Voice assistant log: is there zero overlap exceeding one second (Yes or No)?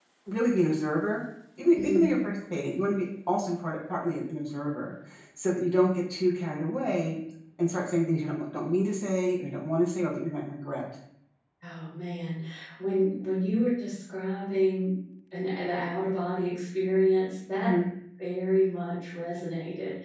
Yes